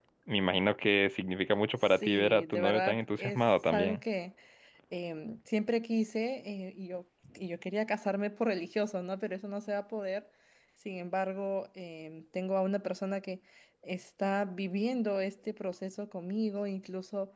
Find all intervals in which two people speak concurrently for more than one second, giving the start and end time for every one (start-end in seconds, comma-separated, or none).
2.0-4.0